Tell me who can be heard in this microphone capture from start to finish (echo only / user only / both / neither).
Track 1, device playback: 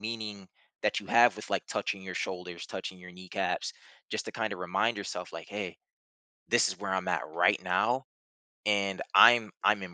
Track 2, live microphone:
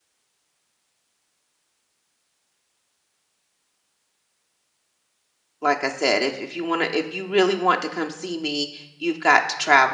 user only